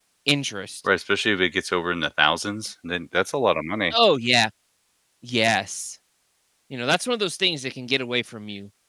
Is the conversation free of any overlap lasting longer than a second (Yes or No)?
Yes